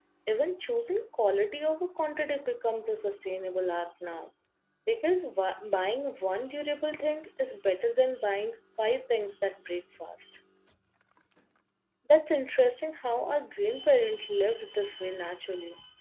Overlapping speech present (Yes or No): No